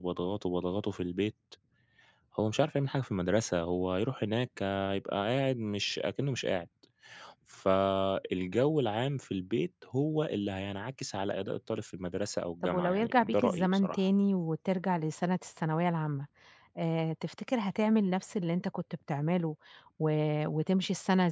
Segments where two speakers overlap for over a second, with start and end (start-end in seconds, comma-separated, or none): 12.6-14.1